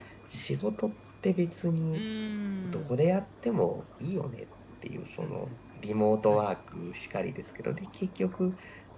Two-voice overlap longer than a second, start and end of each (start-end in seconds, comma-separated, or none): none